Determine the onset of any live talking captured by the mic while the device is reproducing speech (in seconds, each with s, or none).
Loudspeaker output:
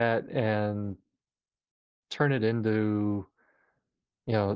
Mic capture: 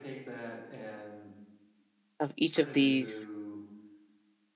2.2 s